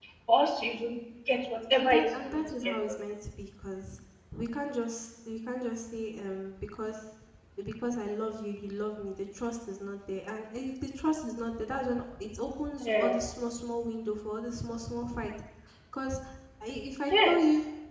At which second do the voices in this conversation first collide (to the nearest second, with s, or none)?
2 s